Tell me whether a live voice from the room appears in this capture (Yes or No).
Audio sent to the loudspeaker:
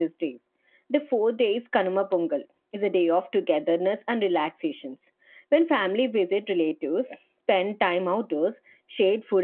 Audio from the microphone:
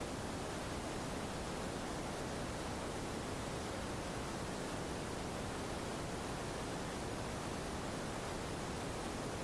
No